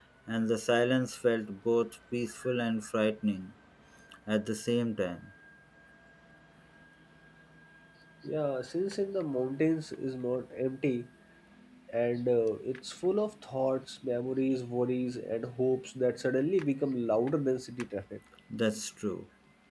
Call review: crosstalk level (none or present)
none